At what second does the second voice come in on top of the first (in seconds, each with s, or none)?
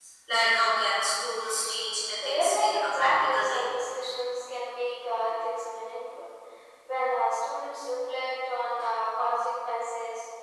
2.1 s